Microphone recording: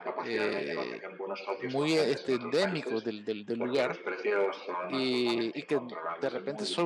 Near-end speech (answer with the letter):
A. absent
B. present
B